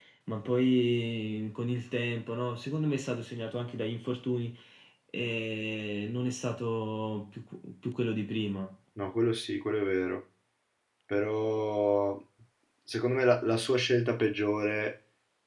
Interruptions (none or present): none